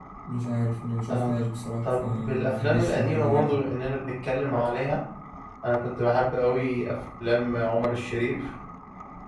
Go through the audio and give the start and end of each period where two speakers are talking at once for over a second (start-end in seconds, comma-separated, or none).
1.9-3.6